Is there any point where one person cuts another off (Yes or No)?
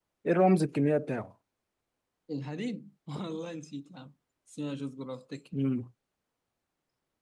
No